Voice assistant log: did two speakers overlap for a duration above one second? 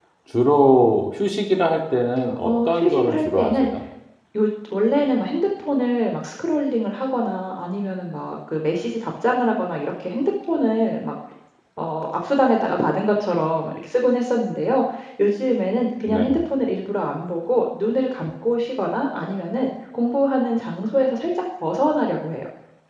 Yes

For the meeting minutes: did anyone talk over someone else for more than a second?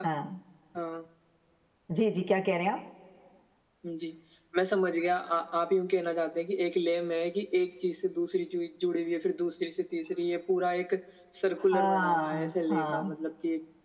Yes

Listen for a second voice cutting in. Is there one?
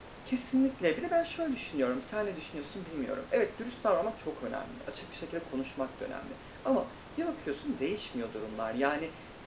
No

